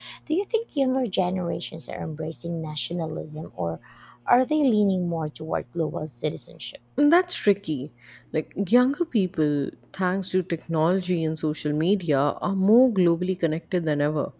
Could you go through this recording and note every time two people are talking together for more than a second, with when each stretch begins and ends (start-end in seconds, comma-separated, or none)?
none